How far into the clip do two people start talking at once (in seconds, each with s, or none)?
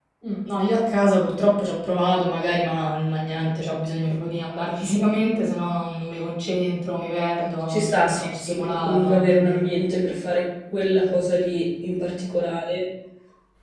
7.7 s